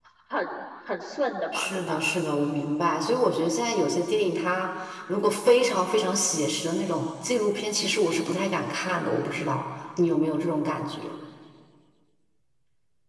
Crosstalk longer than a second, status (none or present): none